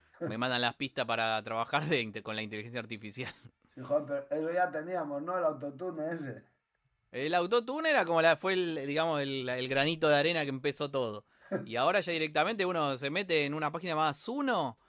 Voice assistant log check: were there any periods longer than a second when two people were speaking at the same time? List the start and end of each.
none

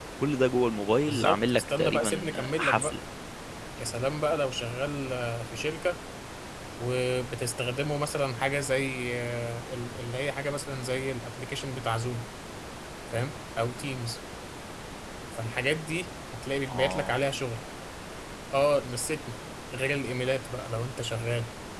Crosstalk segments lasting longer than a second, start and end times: 1.1-3.0

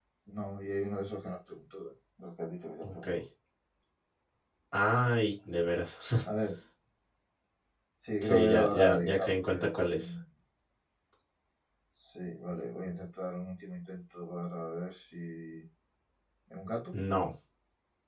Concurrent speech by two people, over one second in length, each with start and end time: 8.2-9.5

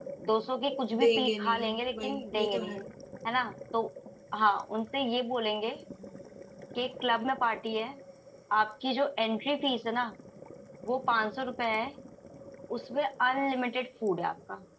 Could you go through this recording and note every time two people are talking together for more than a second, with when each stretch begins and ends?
1.0-2.7

